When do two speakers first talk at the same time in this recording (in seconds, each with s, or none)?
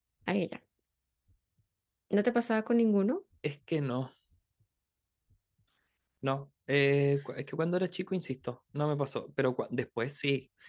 none